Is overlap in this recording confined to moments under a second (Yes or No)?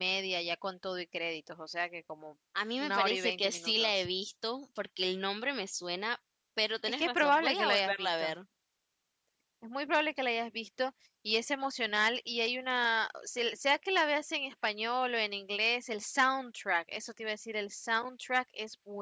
No